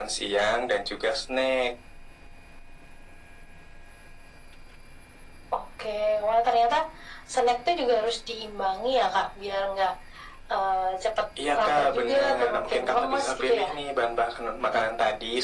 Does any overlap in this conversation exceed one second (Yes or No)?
Yes